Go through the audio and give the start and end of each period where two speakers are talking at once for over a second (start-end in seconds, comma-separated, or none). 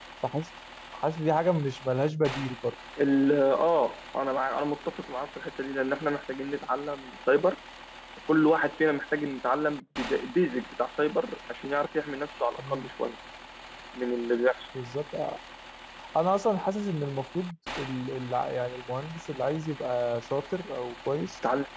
none